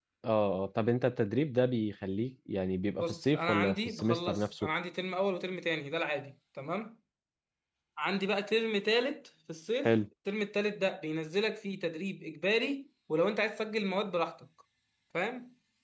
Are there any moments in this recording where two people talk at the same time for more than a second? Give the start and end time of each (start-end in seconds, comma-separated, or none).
3.0-4.7